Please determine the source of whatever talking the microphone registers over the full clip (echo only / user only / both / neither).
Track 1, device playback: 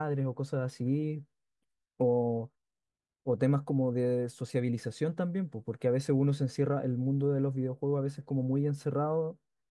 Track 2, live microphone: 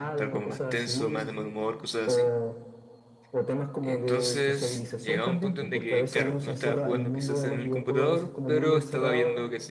both